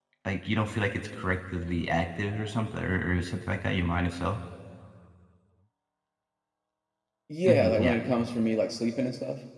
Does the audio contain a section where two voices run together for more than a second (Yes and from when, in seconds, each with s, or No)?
No